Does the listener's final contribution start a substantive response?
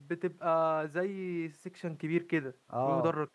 Yes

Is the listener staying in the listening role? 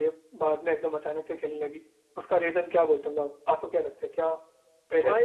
No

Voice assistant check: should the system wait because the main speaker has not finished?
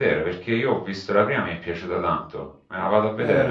No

